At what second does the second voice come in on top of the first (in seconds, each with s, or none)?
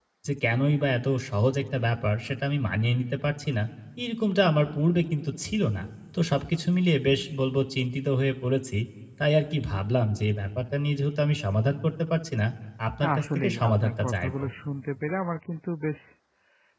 13.0 s